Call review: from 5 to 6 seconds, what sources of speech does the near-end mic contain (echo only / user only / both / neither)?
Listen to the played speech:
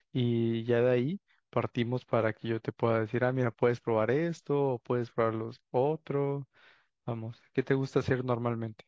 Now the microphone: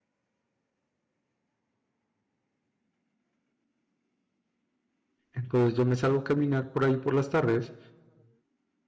user only